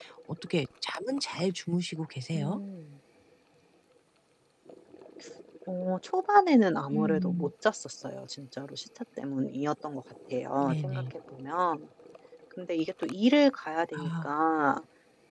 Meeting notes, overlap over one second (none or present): none